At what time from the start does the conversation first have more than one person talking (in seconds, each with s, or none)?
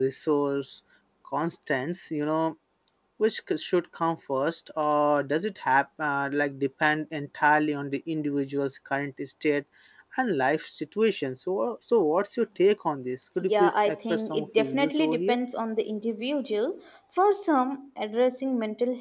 13.4 s